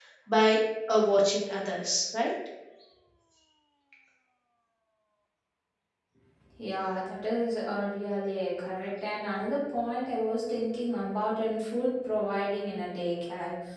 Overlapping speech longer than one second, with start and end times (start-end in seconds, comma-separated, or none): none